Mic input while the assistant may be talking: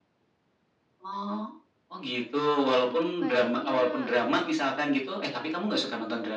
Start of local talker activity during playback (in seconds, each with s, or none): 2.8 s